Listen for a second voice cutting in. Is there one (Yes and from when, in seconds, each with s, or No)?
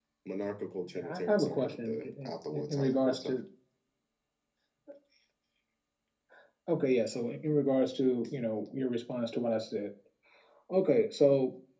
Yes, from 1.0 s